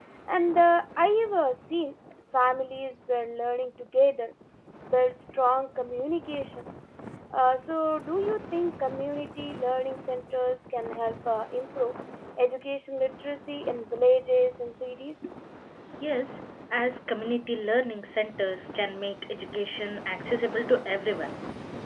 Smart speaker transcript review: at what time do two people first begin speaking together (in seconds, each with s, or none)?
none